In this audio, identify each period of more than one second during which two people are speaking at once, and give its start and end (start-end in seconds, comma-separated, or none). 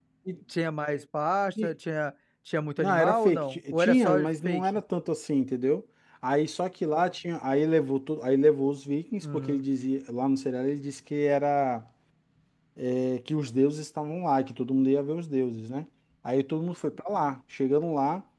2.8-4.7